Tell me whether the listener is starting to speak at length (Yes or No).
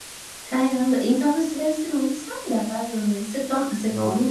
No